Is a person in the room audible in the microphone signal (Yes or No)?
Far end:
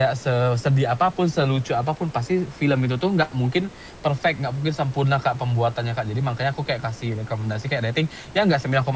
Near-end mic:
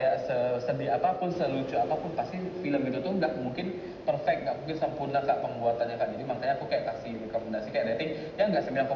No